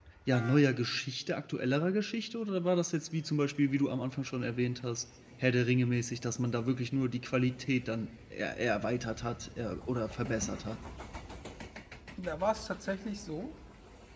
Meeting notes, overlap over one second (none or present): none